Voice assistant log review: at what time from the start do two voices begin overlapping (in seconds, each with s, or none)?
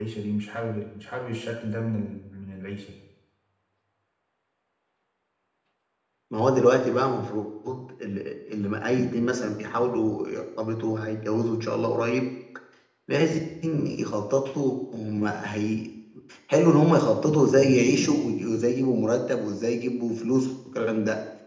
none